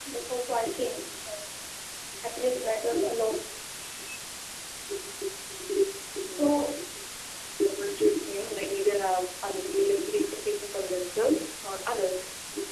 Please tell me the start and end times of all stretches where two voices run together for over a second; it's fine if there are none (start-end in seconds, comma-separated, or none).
none